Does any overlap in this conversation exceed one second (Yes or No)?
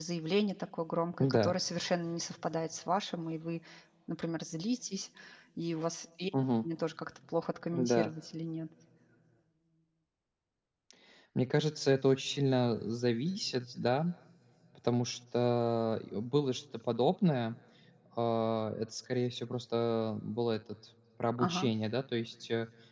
No